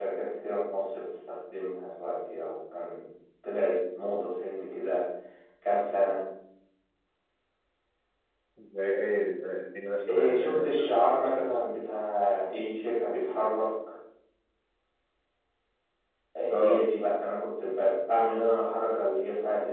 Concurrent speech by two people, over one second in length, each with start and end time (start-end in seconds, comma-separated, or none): 10.1-11.7